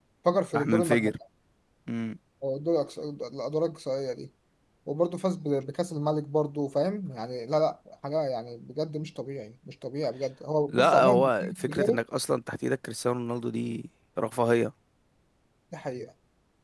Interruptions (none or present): present